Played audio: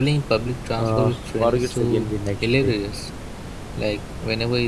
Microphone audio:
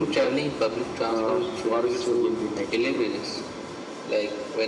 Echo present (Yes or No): Yes